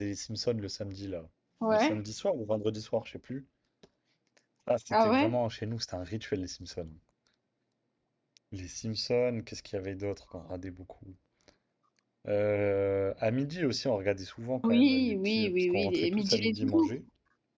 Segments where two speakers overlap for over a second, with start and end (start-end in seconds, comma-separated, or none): 14.6-17.0